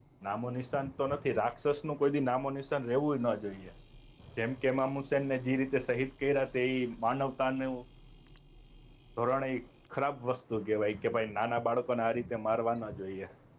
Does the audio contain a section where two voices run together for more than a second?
No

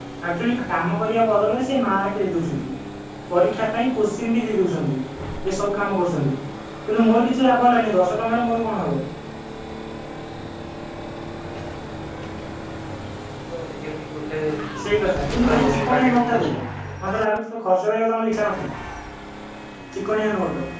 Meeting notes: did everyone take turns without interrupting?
No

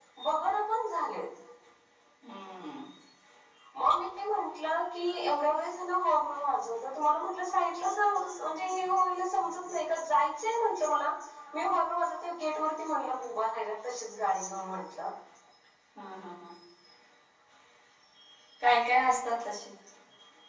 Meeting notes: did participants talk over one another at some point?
No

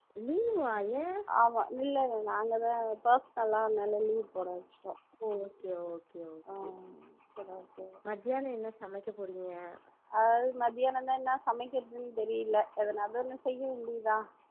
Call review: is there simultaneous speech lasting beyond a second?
No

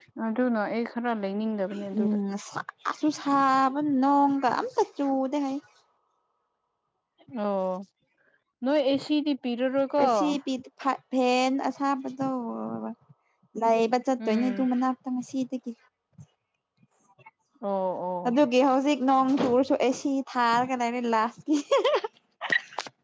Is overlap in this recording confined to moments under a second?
Yes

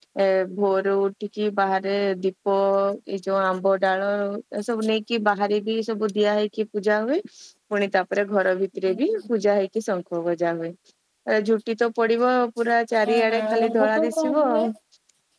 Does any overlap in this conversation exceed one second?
Yes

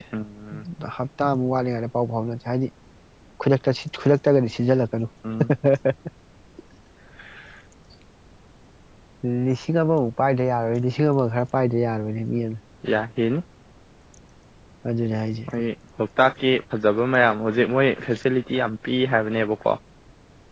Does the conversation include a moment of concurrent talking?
No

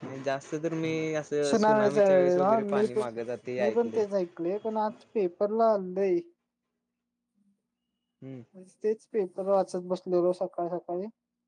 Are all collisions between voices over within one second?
No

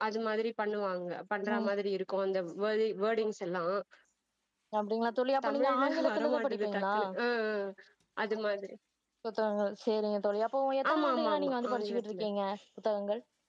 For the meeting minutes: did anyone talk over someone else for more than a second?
Yes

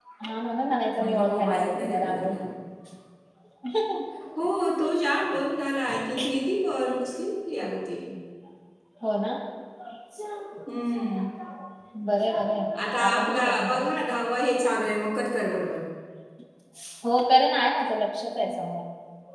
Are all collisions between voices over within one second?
No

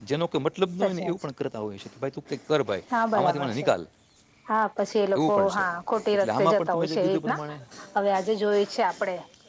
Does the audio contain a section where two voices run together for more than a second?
Yes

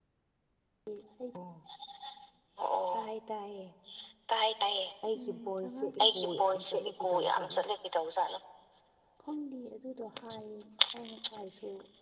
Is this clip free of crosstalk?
No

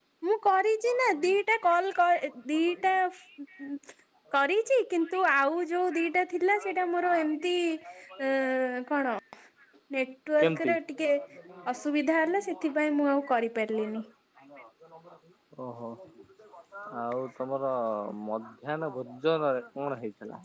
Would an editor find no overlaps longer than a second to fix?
Yes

